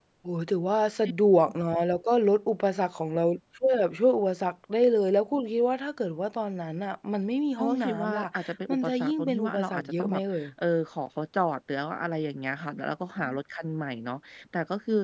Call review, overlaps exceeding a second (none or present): present